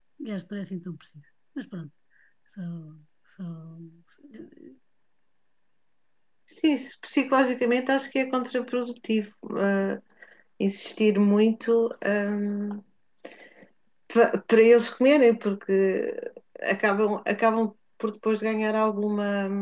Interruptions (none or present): none